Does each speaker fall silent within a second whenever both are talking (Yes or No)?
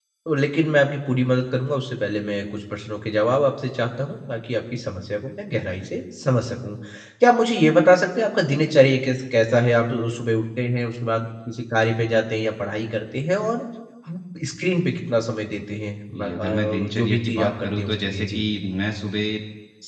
No